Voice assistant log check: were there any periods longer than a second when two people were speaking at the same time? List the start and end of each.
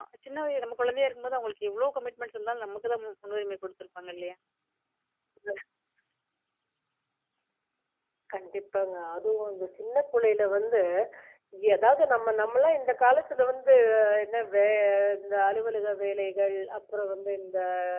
none

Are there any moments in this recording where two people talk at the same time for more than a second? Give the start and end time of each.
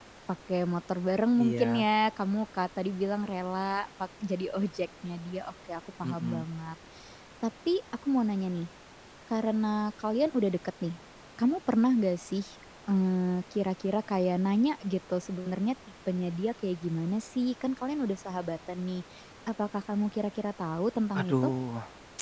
none

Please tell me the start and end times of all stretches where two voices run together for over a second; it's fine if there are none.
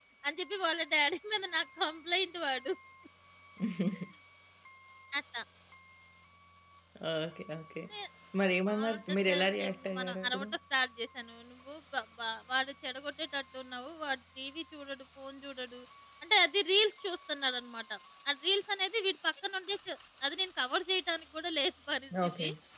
8.7-10.4

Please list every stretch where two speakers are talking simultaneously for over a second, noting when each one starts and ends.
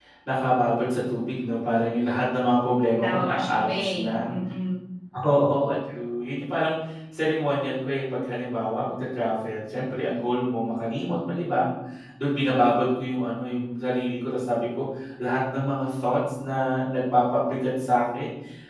3.0-4.3

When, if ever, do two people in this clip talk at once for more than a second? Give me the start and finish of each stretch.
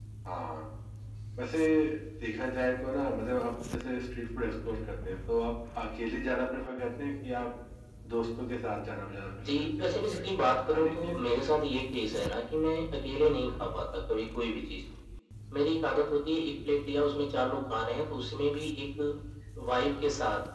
9.4-11.5

